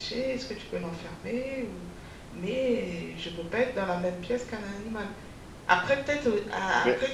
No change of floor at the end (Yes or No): Yes